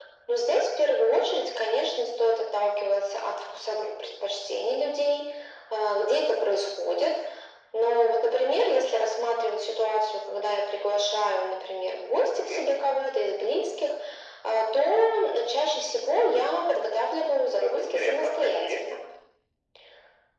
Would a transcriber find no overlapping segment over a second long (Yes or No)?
No